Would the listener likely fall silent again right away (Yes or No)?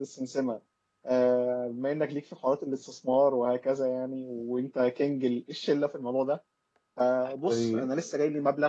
Yes